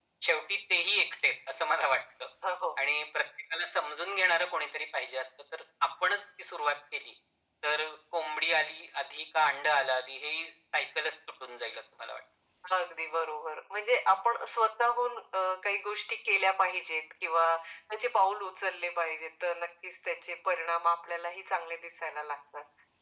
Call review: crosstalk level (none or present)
none